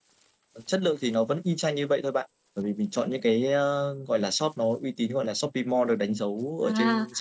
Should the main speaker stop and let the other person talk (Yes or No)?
Yes